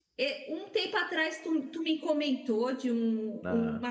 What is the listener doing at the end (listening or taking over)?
listening